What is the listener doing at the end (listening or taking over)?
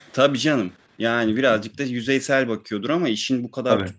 listening